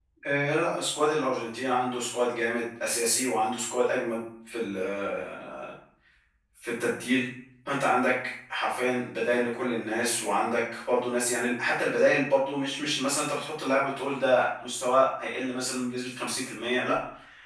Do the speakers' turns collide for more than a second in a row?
No

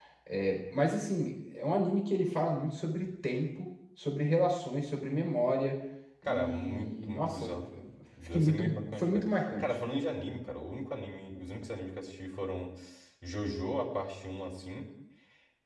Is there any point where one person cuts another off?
Yes, from 6.2 s

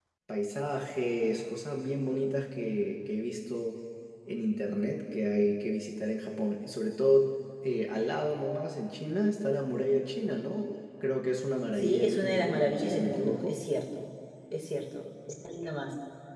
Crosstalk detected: Yes, from 11.8 s

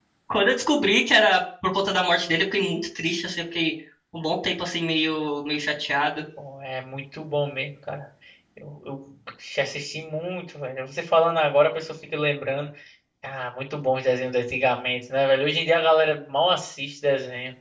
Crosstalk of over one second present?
No

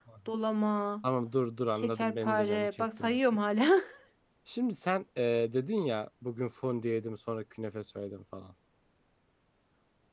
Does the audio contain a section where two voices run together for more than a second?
Yes, from 1.7 s

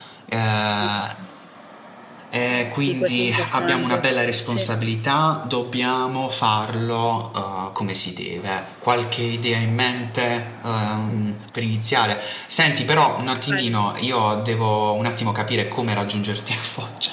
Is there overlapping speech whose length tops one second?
Yes, from 2.8 s

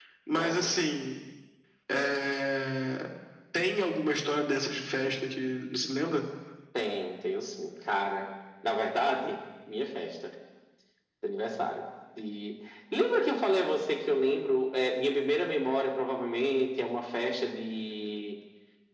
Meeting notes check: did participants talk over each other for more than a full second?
No

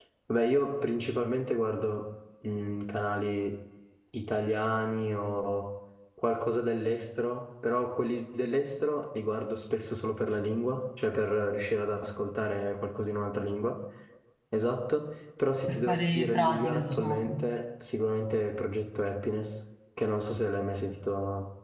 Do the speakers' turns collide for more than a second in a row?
Yes, from 15.7 s

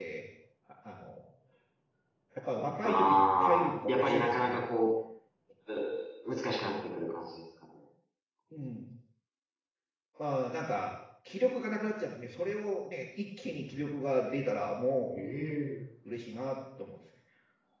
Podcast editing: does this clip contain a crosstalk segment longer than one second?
Yes, from 2.8 s

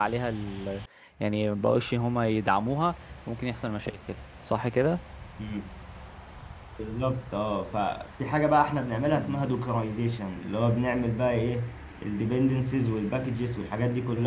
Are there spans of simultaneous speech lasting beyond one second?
No

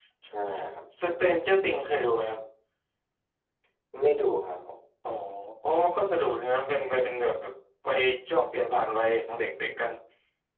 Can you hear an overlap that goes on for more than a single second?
No

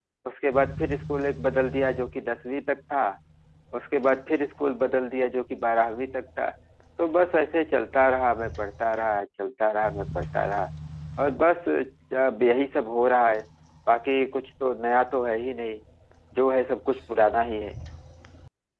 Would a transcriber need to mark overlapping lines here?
No

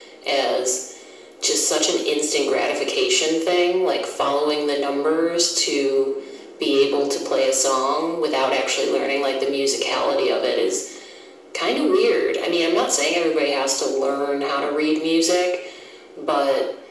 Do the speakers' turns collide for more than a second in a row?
No

